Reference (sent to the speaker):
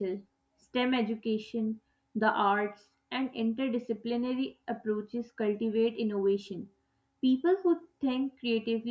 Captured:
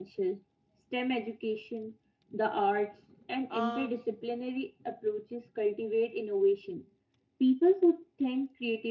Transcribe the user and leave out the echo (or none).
um,